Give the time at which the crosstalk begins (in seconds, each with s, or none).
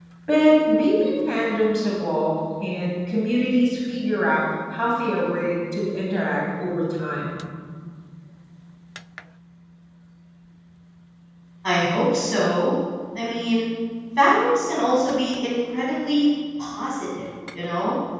none